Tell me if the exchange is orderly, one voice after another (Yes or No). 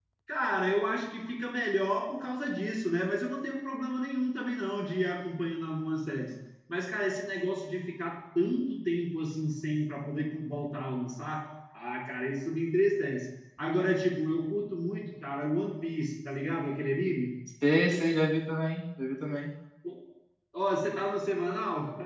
Yes